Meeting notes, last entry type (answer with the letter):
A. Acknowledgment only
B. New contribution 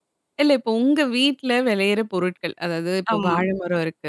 A